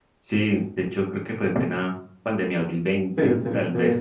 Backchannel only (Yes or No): No